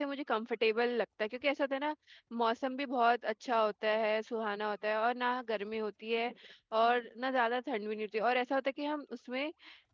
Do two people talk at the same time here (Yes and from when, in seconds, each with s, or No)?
No